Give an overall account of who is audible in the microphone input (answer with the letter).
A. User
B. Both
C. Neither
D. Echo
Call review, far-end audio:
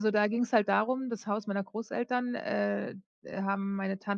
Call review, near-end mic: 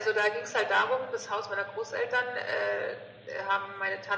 D